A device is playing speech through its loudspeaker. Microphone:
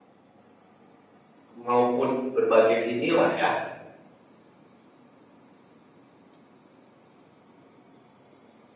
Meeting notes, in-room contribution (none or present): present